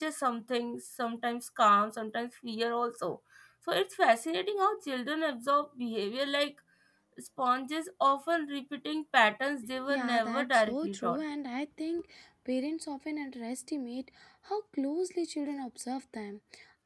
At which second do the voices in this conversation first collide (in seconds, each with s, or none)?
9.9 s